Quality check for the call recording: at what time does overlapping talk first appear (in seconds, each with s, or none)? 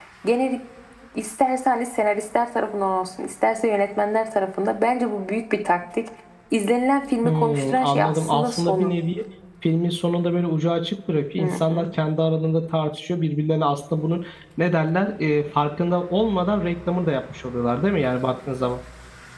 7.2 s